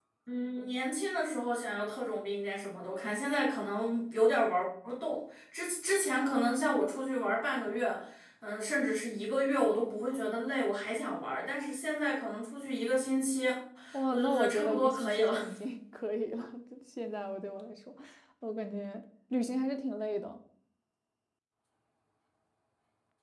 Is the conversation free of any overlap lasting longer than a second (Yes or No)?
No